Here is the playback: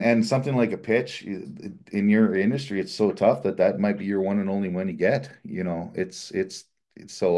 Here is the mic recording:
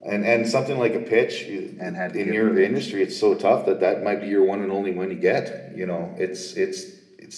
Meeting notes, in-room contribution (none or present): present